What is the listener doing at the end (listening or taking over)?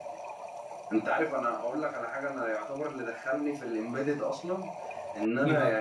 listening